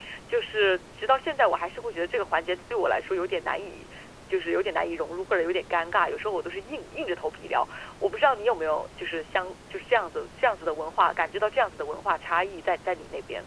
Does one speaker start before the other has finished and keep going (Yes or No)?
No